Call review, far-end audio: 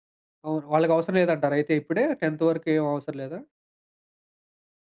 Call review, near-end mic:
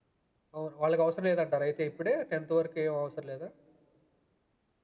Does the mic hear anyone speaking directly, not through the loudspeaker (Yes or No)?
No